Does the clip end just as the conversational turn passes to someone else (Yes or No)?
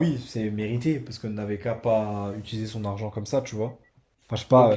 Yes